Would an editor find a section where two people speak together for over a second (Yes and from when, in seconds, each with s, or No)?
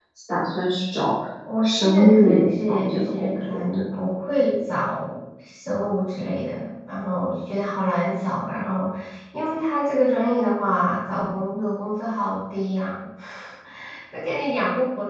Yes, from 1.6 s